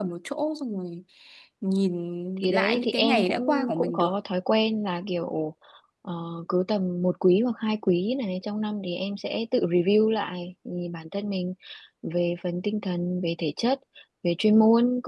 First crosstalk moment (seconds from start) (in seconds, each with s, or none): 2.4 s